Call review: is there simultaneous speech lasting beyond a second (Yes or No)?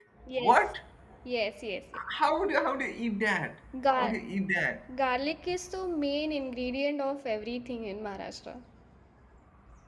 No